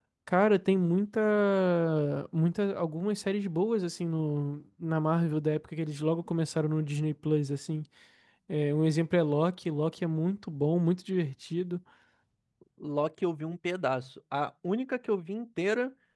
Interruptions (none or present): none